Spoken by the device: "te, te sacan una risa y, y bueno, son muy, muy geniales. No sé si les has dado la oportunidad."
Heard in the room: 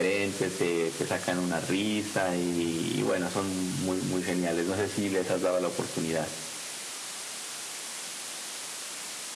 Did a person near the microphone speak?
No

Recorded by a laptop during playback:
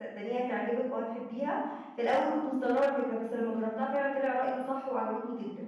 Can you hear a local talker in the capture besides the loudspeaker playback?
Yes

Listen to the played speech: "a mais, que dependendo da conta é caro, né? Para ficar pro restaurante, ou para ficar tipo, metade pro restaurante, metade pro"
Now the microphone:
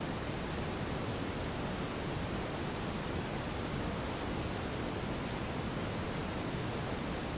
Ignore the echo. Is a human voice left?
No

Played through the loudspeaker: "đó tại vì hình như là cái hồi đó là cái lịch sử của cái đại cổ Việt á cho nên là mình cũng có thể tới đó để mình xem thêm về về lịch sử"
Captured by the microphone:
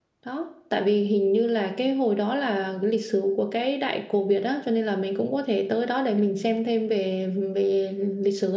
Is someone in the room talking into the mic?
No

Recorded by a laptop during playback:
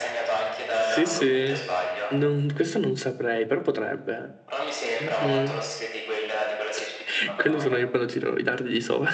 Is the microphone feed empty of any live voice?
No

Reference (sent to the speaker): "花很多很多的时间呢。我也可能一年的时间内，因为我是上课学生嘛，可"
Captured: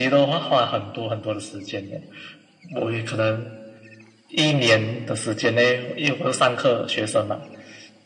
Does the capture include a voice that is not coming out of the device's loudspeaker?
No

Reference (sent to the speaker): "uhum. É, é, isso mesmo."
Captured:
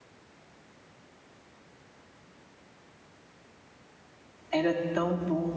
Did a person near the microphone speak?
Yes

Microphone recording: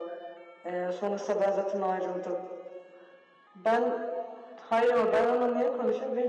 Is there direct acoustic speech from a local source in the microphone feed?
No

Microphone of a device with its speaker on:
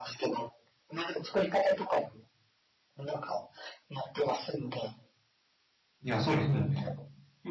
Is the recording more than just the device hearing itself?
Yes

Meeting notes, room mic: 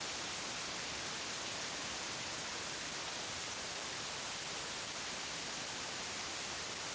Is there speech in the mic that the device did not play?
No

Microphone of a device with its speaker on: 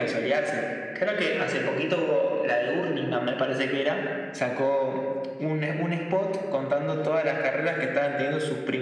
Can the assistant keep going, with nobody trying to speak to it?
Yes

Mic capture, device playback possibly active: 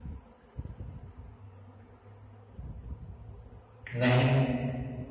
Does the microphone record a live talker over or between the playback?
Yes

